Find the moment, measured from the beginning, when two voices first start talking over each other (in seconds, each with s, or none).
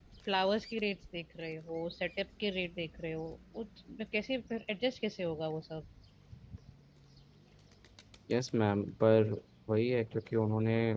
none